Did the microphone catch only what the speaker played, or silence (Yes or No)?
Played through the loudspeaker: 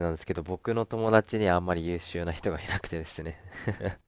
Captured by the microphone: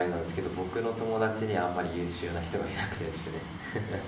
Yes